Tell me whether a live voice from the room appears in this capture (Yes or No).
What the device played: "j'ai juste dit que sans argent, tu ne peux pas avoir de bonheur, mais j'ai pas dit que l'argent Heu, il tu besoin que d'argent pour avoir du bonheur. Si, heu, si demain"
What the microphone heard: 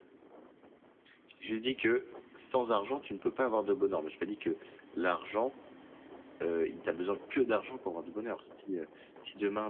No